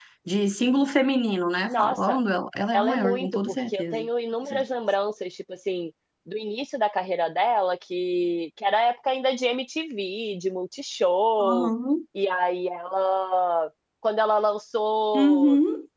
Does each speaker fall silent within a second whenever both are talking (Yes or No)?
No